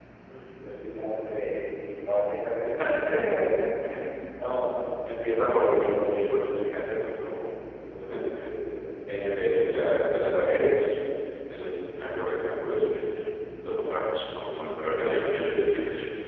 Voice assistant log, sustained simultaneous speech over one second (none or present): present